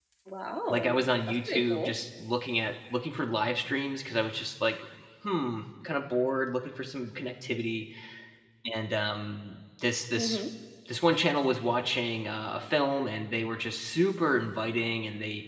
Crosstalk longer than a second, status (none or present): present